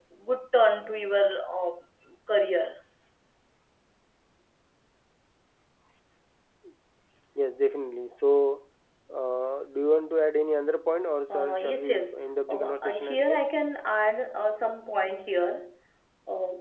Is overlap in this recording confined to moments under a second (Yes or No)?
No